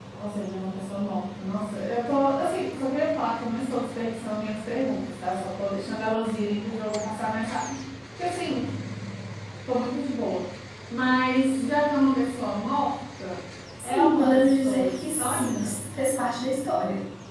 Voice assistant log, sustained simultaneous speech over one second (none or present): present